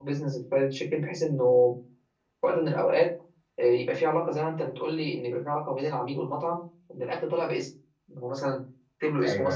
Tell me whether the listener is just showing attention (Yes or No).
Yes